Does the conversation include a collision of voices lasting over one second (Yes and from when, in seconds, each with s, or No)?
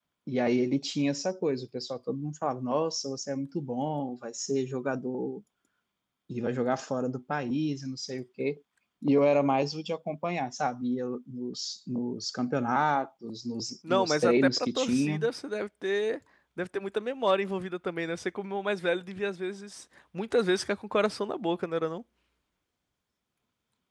Yes, from 13.8 s